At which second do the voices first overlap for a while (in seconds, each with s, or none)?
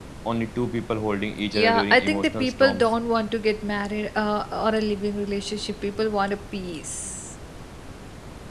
1.5 s